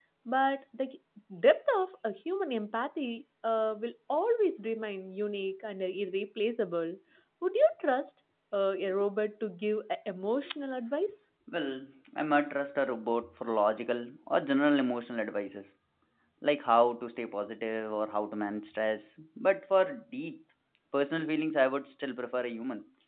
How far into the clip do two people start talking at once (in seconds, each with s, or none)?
none